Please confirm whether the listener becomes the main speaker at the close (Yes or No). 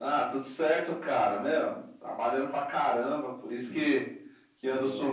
No